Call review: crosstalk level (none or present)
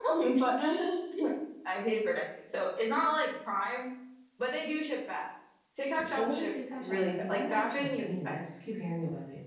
present